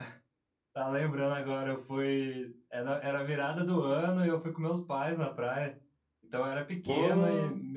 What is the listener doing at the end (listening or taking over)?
listening